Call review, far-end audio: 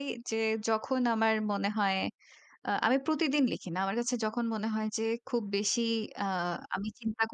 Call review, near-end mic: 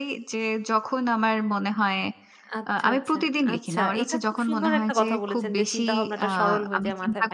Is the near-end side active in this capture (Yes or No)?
Yes